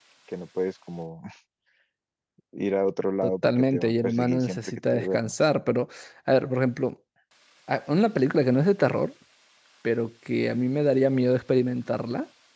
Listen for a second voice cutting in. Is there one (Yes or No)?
Yes